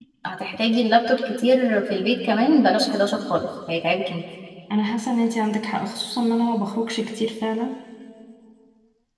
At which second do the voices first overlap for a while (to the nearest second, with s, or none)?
none